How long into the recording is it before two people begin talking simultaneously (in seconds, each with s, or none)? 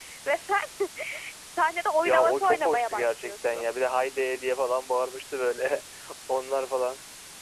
2.0 s